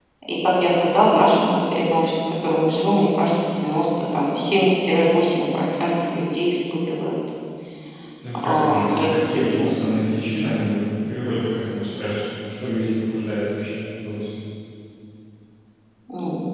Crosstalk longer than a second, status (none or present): present